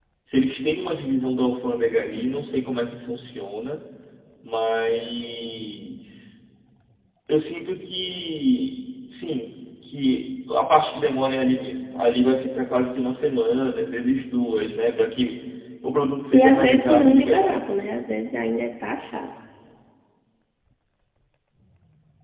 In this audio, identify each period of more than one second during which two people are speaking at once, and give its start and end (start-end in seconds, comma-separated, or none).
16.3-17.7